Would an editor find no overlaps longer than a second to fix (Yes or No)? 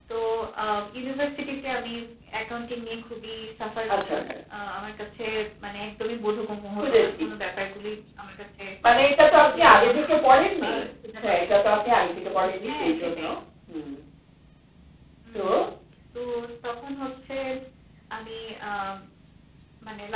No